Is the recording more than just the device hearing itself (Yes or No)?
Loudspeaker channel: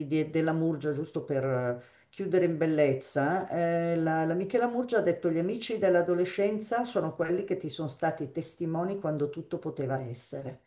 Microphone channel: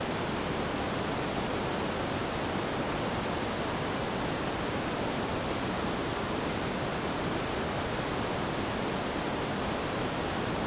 No